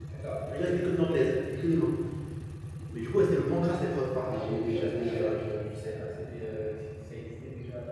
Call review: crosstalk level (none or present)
present